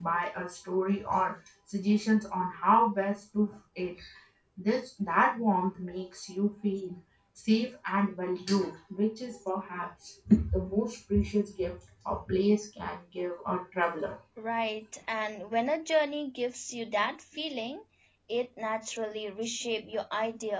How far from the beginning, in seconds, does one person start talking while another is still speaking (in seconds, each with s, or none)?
none